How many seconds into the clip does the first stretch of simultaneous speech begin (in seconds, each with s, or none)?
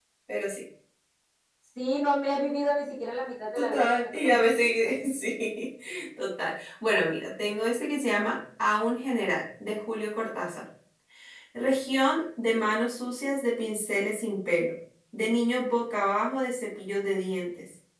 3.6 s